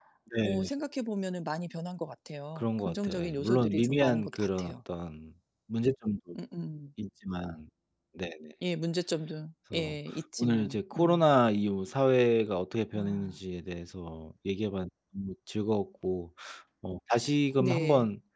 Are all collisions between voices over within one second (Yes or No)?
No